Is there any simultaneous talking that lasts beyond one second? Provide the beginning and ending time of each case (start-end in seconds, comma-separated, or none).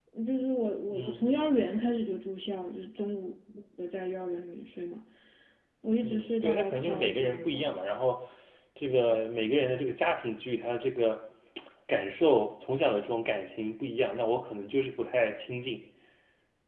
6.0-7.8